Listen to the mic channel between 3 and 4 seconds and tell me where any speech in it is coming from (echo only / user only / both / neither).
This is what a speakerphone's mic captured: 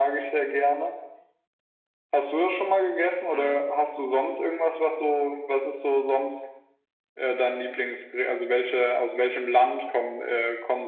both